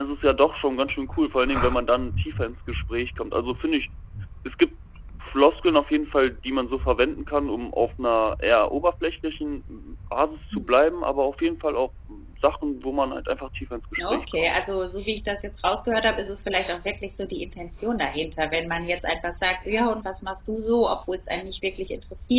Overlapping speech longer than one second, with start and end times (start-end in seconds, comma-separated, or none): none